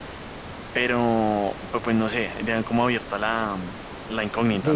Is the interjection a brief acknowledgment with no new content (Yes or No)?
No